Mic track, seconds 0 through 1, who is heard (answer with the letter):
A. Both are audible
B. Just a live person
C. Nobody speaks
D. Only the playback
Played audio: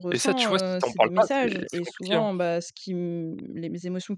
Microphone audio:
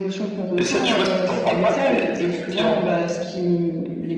D